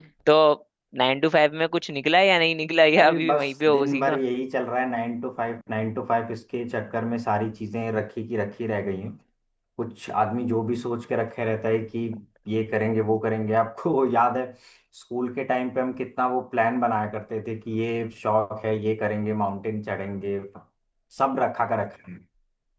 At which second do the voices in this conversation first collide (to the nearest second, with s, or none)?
3 s